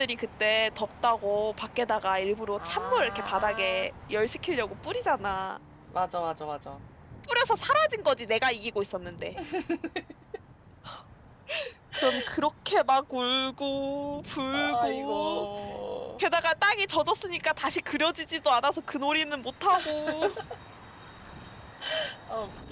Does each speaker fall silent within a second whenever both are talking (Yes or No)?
No